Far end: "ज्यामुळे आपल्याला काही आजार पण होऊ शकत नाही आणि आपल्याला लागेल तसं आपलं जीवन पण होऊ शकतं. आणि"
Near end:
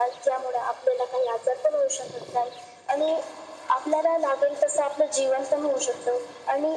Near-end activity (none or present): none